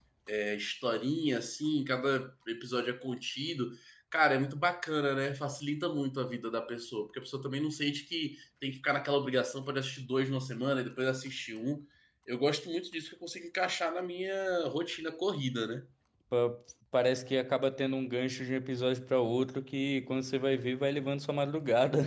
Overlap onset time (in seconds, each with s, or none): none